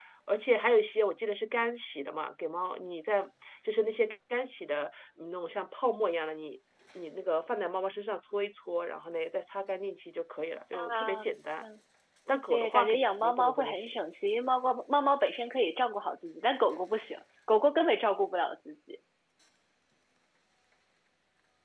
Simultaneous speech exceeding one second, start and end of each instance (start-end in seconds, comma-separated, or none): 12.5-14.0